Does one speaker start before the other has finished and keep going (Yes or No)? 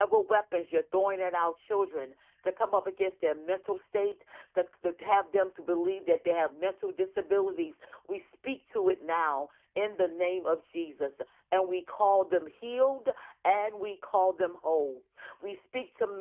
No